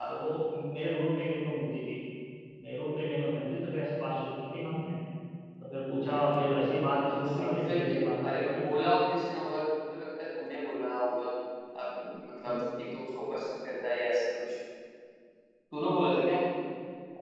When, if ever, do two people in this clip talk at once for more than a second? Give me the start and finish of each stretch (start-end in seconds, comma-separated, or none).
7.1-8.6